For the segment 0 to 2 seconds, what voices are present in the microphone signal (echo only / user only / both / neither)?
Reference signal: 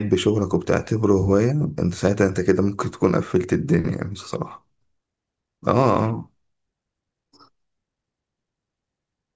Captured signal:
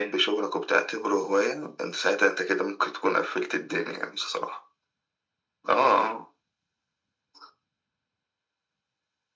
echo only